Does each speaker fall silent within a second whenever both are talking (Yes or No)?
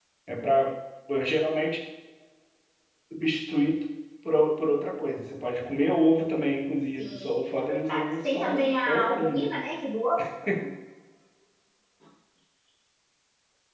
No